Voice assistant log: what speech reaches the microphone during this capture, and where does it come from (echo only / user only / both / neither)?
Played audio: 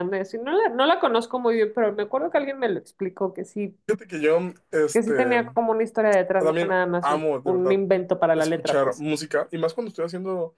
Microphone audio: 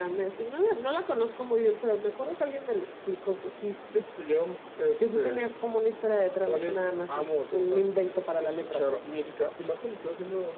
echo only